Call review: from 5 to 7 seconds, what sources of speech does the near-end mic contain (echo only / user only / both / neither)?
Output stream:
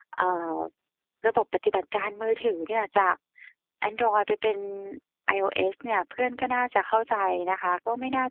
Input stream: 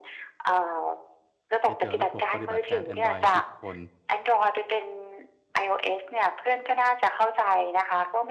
echo only